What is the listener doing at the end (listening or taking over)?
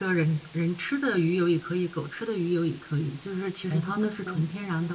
listening